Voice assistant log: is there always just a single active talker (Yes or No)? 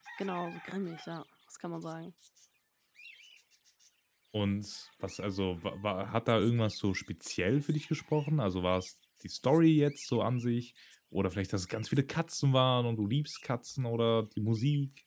Yes